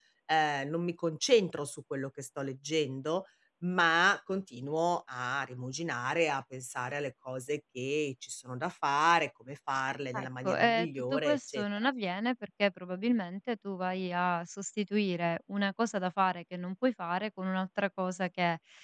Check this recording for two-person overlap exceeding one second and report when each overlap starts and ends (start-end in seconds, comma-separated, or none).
10.1-11.9